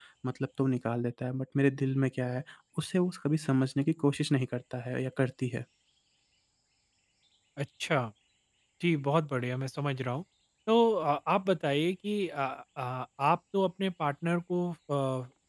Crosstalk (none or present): none